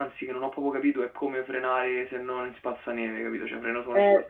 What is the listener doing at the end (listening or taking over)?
taking over